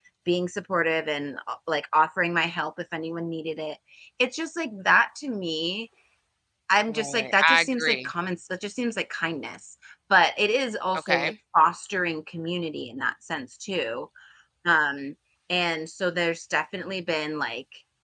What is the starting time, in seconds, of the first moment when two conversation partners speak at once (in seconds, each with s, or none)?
6.9 s